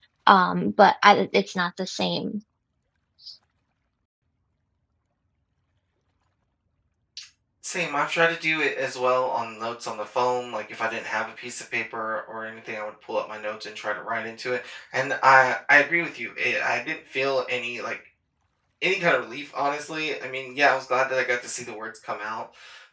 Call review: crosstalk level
none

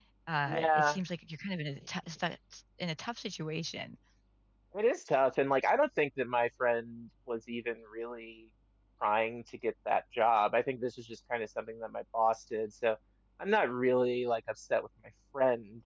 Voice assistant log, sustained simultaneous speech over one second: none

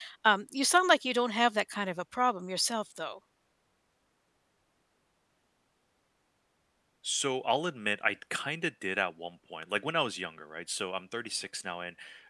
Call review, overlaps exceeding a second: none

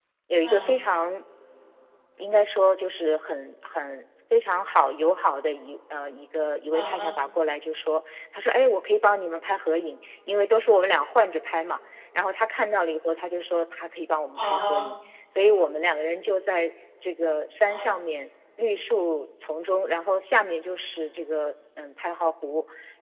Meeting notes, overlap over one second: none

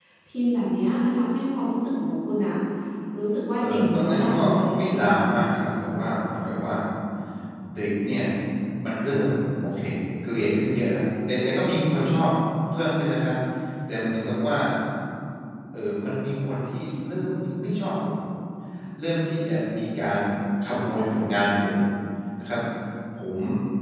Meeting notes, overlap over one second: present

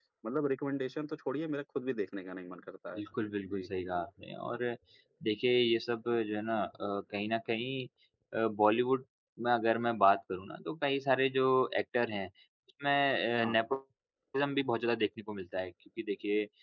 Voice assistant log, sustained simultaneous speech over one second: none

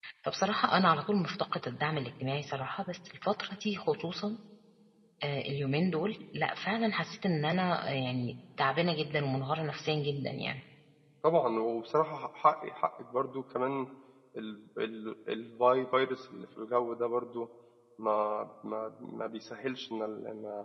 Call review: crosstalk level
none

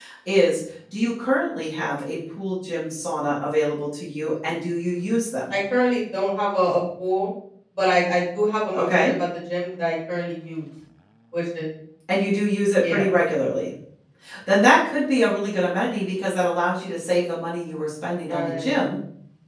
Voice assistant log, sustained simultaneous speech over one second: none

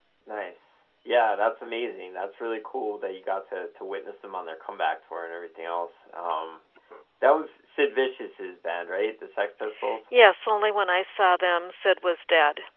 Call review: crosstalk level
none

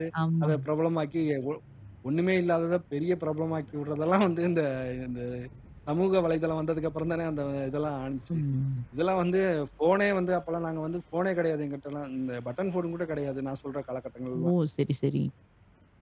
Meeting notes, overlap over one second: none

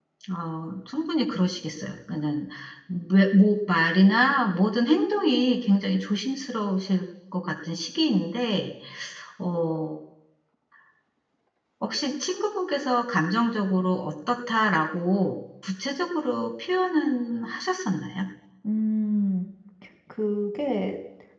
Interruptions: none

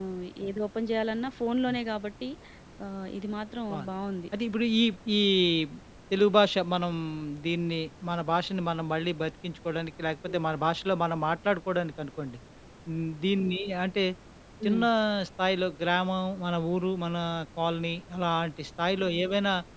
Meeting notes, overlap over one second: none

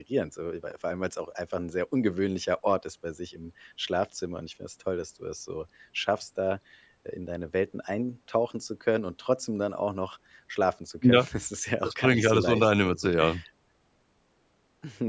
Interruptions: present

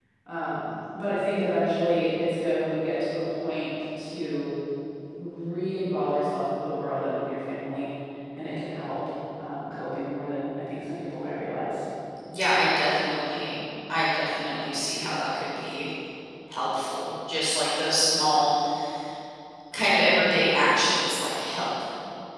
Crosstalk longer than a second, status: none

